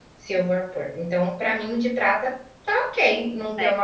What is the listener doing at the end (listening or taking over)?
taking over